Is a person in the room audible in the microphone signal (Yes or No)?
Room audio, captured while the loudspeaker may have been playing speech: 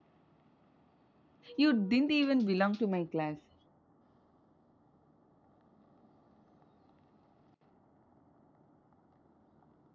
Yes